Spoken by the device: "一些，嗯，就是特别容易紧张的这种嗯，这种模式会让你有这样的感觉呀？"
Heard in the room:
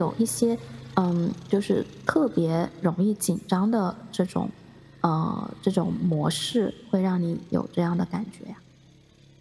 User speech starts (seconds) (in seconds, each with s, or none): none